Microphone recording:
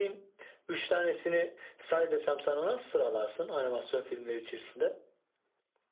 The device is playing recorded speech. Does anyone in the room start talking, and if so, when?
none

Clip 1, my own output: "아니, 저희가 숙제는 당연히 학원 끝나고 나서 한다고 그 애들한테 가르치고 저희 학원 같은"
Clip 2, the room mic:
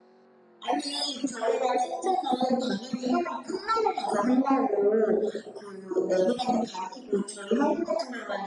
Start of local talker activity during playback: none

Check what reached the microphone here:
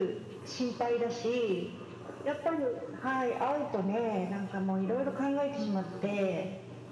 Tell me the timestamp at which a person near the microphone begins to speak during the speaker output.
5.6 s

